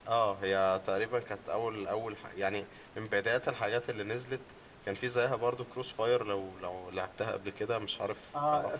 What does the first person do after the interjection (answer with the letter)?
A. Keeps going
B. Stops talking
B